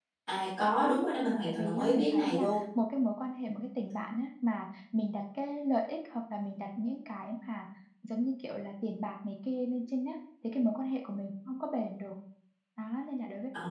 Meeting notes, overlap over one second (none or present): present